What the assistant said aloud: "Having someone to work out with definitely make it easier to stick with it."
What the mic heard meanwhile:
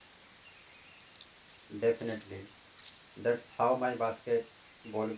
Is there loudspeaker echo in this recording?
No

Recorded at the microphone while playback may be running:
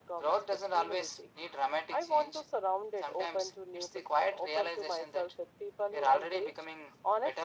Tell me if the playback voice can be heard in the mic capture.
Yes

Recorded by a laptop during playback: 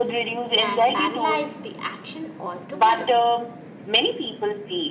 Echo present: Yes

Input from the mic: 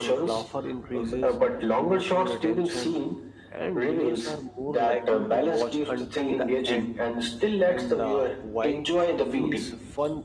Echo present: Yes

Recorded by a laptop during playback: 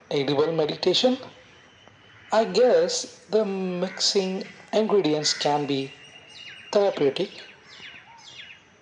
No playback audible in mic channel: No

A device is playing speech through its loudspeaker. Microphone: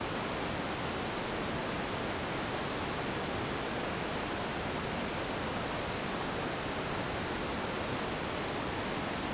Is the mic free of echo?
Yes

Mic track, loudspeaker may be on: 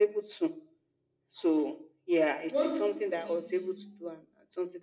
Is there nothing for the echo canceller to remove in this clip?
No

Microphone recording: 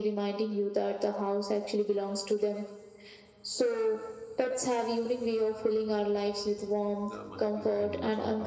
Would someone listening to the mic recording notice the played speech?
Yes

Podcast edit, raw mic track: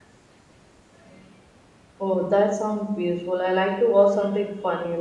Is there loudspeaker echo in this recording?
No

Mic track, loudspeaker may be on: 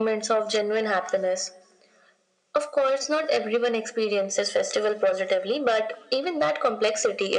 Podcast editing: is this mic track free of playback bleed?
No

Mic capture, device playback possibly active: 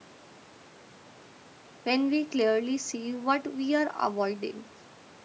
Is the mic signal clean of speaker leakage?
Yes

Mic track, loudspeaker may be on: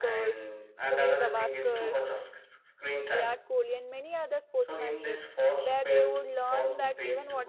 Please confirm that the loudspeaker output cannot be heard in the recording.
No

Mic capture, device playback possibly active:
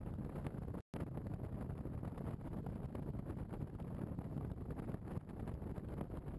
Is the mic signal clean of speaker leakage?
Yes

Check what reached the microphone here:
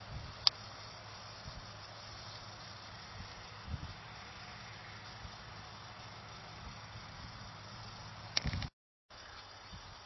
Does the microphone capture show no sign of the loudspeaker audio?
Yes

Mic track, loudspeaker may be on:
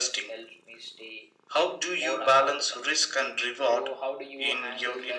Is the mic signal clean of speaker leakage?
No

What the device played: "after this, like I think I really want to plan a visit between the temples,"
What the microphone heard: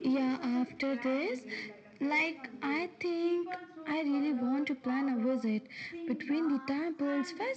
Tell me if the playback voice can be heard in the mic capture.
Yes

